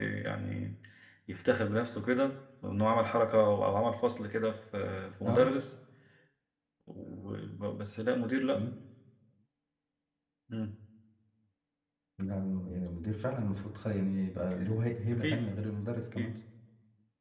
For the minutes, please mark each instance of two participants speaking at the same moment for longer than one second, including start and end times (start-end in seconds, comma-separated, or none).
none